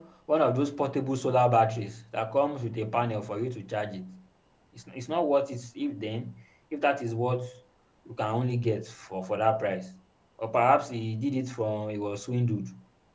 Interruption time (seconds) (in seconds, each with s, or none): none